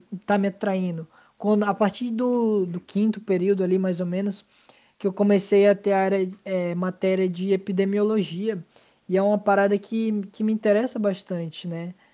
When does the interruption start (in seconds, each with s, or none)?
none